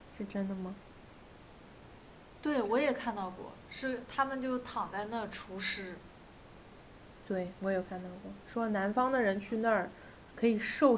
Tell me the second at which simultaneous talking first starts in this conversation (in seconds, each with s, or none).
none